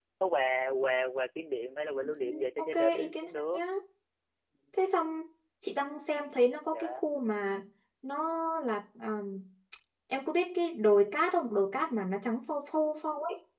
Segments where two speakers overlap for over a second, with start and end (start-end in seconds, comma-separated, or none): 1.9-3.6